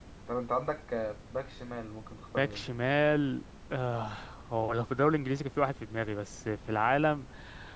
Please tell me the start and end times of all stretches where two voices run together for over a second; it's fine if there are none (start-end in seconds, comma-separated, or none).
none